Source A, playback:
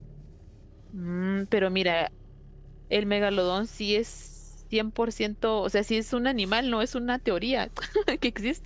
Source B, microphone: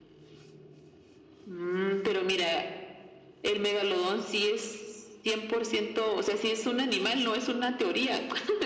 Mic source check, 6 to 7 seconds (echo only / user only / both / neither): echo only